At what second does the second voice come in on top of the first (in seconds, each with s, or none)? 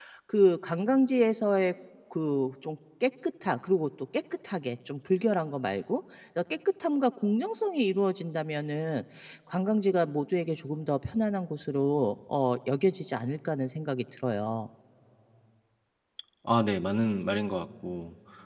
none